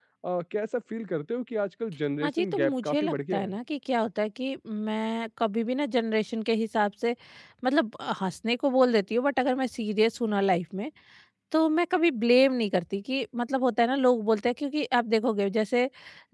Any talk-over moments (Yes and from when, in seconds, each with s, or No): Yes, from 2.2 s